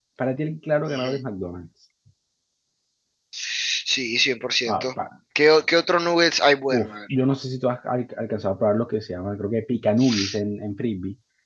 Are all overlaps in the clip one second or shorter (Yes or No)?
Yes